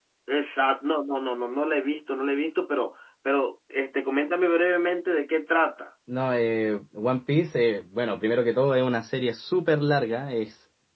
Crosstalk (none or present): none